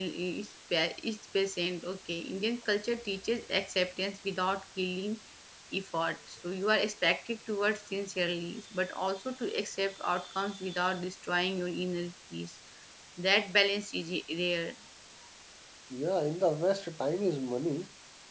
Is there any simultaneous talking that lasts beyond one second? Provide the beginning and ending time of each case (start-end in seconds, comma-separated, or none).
none